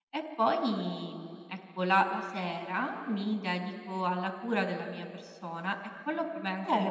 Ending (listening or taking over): taking over